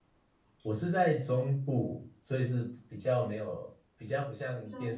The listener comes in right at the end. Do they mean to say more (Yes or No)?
No